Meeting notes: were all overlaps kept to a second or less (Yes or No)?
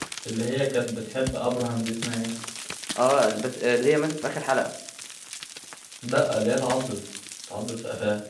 Yes